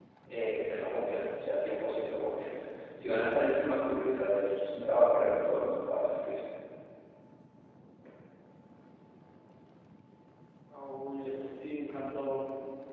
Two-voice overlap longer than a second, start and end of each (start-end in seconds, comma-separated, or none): none